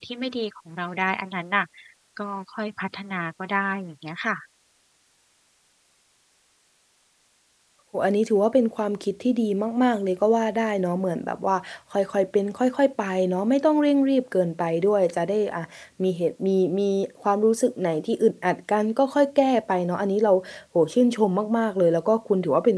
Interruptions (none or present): none